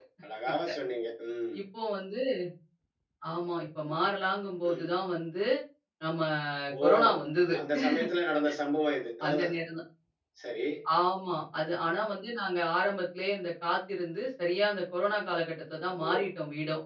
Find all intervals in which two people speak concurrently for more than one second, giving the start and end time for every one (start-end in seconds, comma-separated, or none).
none